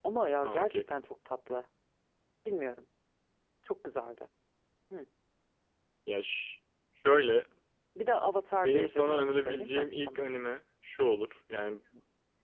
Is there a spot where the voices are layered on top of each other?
Yes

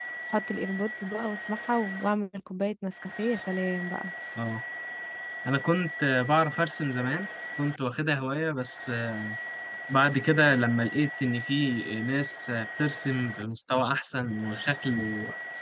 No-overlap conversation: Yes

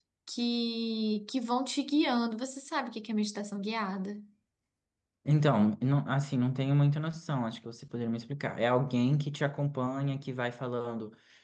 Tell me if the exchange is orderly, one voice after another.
Yes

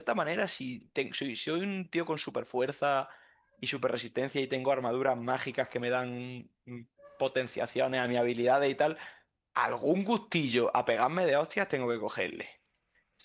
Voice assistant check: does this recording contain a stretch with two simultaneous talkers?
No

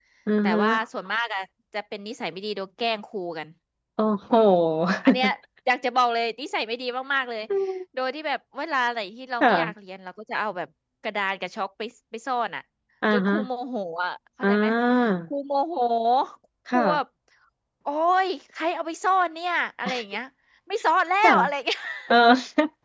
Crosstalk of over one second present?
No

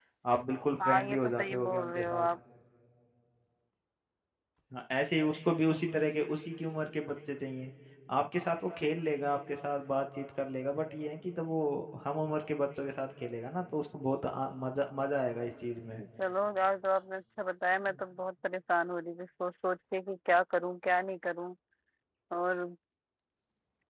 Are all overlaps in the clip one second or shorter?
No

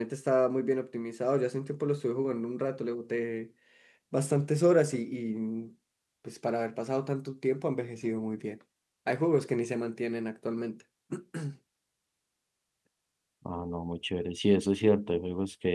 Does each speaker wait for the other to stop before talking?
Yes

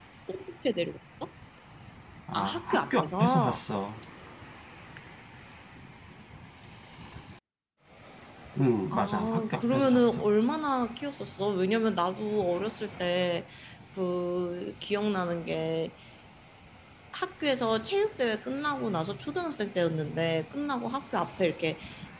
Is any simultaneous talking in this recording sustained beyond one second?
Yes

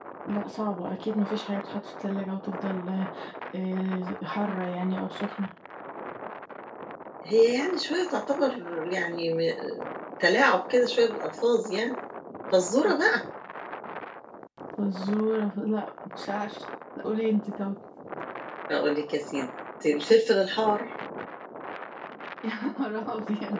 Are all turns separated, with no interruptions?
Yes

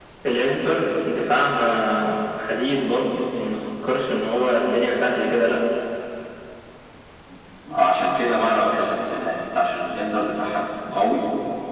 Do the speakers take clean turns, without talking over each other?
Yes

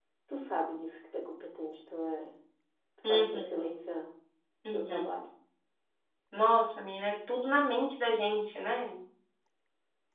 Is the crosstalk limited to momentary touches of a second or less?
Yes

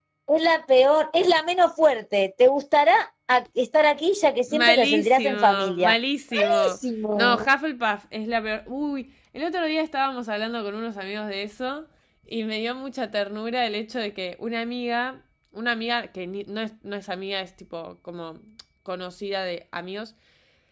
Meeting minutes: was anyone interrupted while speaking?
Yes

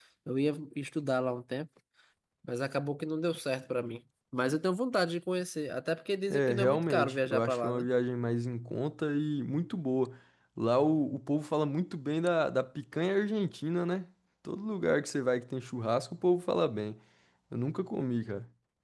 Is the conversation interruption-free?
No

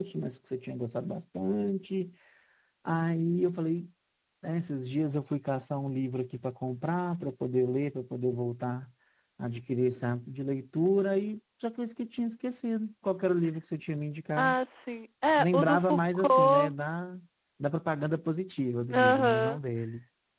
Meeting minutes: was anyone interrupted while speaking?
Yes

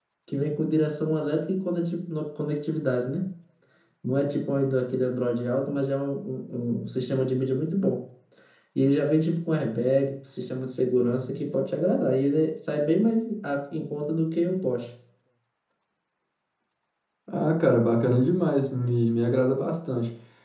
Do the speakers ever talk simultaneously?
No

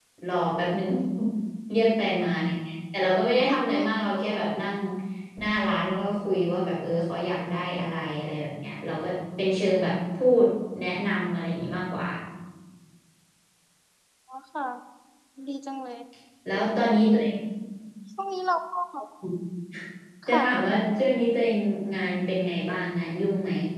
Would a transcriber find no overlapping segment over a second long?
Yes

